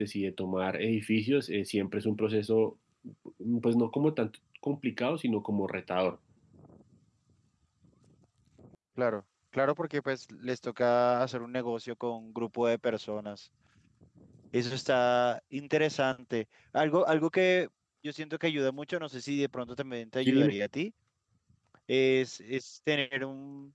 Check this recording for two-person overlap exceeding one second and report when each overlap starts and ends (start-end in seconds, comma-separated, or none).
none